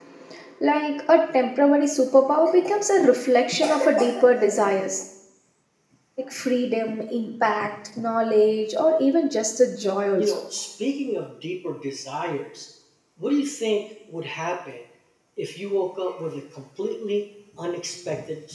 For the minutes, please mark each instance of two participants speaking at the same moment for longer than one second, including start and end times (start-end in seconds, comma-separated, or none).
none